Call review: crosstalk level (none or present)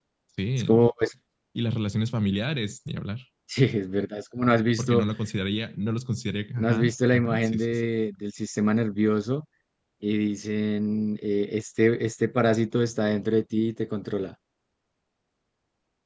present